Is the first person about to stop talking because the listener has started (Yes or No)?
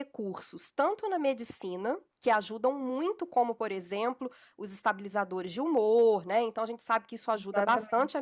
No